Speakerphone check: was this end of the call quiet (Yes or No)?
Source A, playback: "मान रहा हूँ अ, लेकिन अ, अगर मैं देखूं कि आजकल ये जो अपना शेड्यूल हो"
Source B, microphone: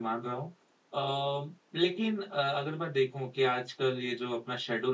Yes